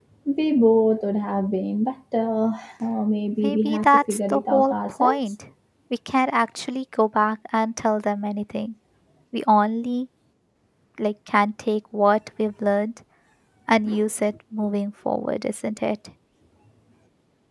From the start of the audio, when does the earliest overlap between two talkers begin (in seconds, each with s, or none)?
3.4 s